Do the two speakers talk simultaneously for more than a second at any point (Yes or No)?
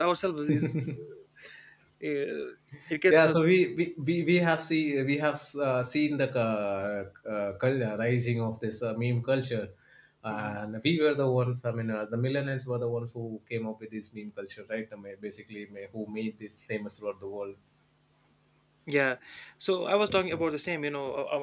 No